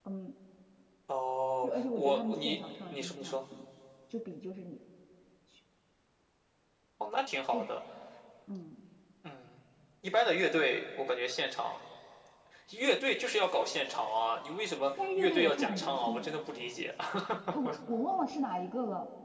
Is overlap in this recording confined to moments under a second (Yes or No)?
No